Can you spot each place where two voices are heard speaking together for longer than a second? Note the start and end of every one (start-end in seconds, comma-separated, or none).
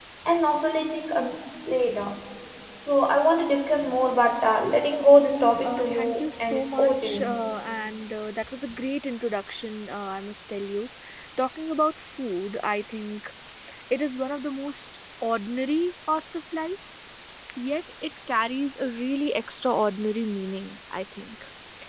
5.6-7.4